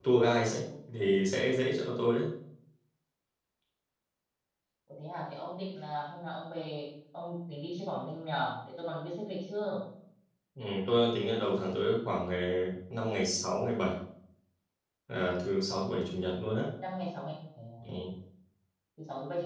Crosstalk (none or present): none